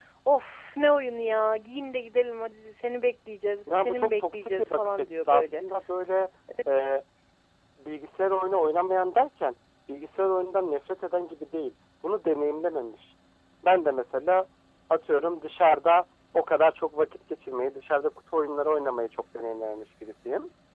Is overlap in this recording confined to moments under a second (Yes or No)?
No